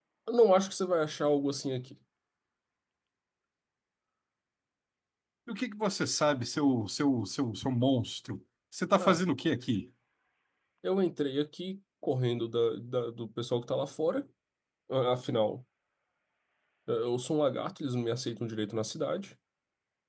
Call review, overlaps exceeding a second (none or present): none